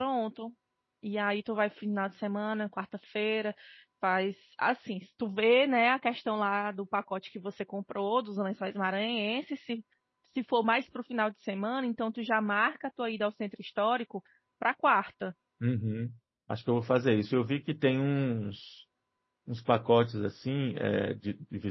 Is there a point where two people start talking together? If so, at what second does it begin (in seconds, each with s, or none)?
none